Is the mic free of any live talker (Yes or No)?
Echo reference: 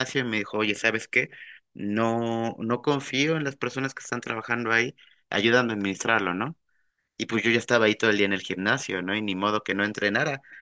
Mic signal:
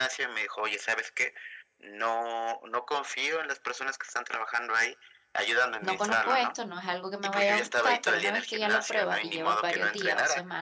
No